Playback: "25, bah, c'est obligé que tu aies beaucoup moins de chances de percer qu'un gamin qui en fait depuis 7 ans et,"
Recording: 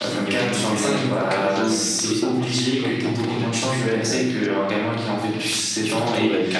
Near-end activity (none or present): present